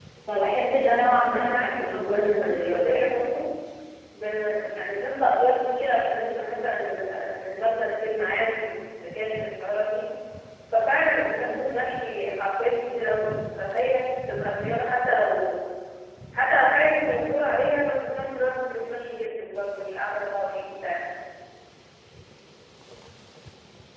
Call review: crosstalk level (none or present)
present